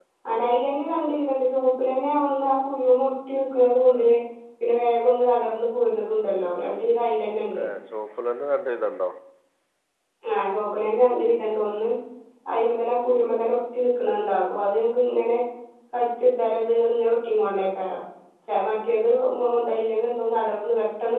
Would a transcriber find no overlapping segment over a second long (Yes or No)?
Yes